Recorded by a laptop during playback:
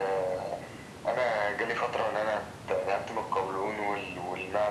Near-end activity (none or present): none